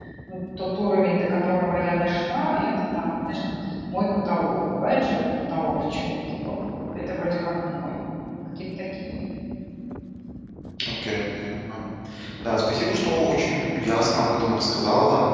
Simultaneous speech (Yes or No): No